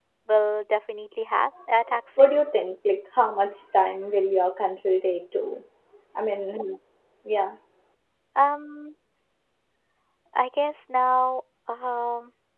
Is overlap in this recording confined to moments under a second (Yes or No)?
Yes